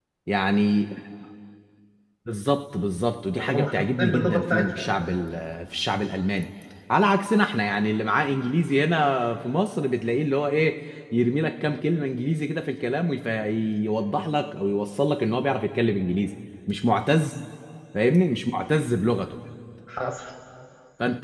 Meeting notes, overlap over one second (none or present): present